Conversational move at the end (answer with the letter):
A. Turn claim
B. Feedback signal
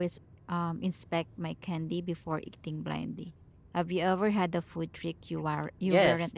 A